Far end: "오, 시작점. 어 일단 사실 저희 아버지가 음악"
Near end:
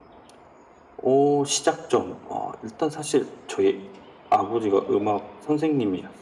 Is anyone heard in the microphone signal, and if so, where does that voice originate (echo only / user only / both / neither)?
echo only